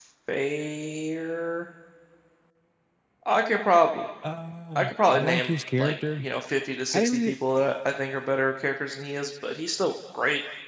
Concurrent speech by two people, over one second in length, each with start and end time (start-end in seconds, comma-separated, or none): 4.8-6.3